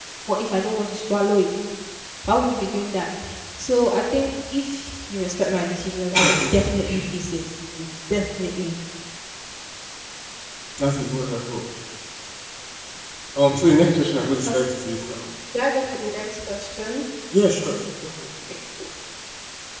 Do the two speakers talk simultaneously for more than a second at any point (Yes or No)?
No